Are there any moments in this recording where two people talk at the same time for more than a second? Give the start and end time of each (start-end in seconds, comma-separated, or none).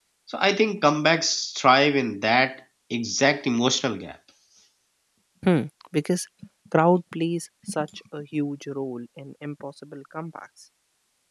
none